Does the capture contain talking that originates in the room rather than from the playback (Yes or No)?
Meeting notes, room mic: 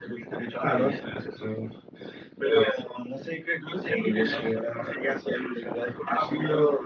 No